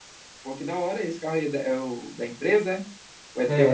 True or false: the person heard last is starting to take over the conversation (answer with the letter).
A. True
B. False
A